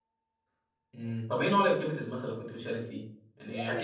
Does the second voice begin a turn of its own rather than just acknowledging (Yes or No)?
Yes